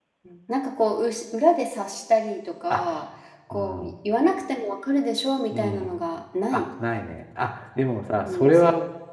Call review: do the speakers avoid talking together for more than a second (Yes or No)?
Yes